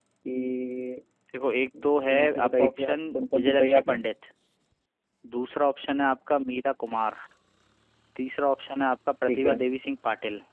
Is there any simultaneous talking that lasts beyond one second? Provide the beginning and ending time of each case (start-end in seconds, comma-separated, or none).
2.1-4.0